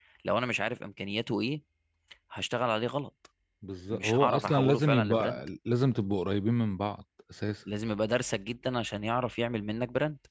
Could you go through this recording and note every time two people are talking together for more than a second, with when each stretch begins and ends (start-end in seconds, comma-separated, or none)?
3.9-5.4